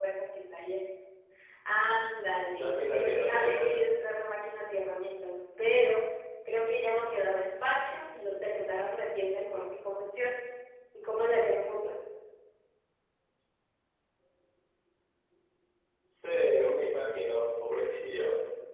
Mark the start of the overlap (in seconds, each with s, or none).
2.5 s